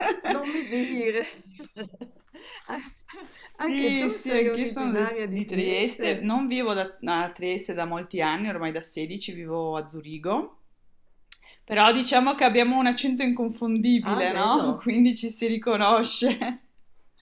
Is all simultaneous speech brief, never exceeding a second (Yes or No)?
No